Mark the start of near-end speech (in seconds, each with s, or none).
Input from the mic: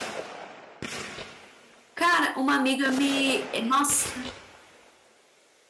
1.9 s